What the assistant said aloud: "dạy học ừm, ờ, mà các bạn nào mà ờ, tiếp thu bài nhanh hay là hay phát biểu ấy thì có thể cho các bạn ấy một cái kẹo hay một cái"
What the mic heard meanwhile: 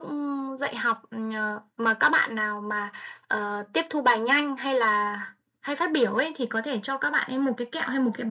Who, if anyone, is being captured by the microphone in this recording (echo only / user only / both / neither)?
echo only